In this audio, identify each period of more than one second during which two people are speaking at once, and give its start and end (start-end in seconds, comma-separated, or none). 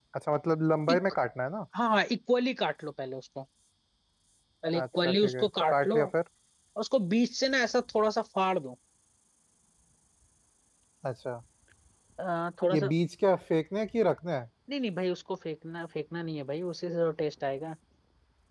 4.8-6.1